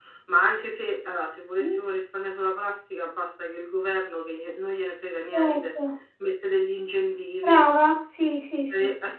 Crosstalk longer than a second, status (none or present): none